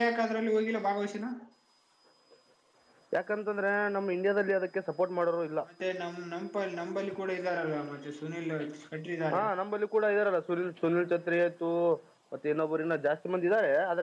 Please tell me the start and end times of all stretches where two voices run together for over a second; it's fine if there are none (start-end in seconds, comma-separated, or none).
none